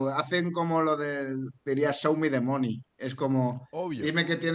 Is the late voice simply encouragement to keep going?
Yes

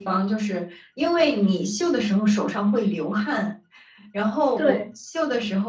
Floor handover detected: No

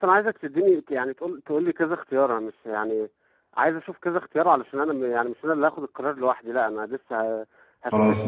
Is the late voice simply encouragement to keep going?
Yes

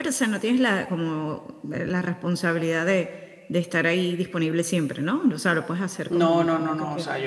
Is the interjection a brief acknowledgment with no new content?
No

